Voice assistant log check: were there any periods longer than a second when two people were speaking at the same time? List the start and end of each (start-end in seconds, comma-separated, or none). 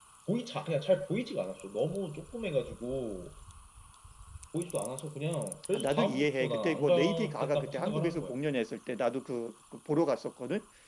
5.7-8.3